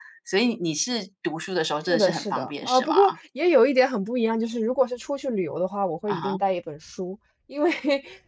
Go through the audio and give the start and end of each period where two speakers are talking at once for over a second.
1.9-3.1

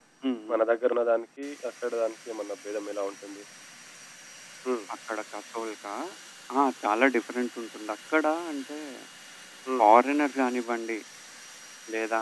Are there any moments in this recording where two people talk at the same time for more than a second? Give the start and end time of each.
none

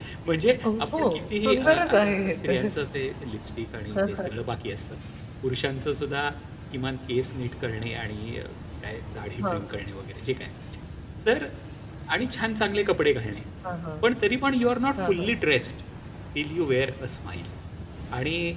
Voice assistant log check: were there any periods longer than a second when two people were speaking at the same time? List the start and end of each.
1.4-2.7

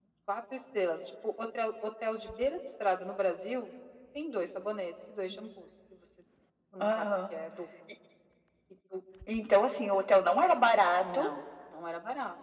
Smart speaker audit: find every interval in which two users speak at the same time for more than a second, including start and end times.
none

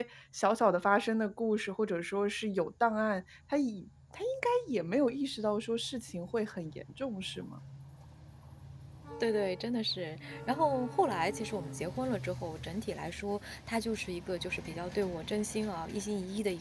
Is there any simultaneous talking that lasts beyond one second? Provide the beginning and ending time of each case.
none

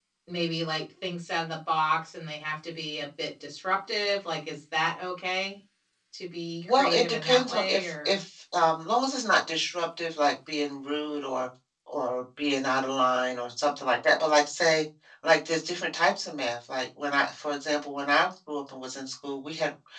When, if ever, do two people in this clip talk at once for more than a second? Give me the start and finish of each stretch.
6.6-8.2

